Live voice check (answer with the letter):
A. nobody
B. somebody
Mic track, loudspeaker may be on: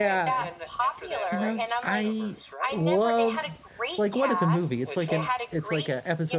B